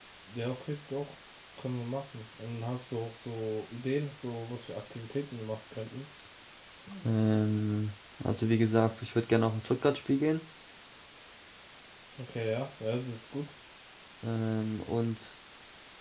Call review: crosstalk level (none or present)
none